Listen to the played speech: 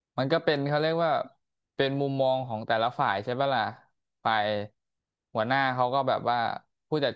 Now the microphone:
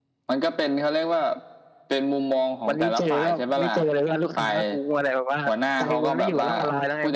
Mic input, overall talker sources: both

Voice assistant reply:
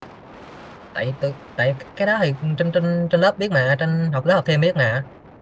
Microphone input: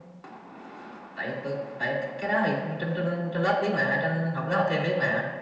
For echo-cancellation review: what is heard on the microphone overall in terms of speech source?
echo only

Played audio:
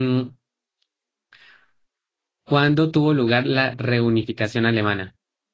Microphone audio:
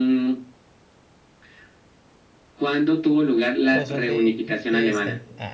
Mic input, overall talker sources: both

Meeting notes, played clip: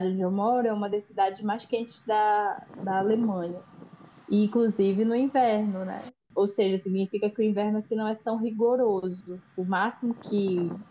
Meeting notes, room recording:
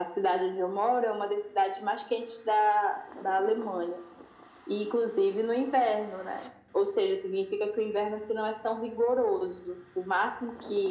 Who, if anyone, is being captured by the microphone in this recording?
echo only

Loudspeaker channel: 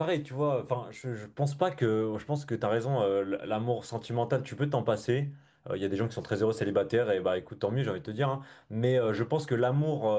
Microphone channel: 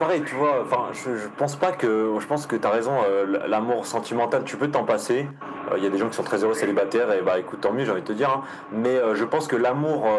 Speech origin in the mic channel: echo only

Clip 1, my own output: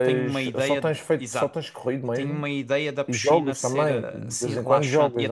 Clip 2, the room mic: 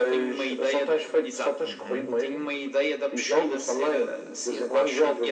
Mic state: both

